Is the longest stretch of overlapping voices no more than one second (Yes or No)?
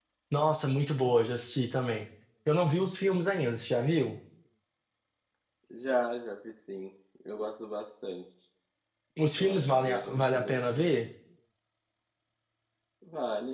No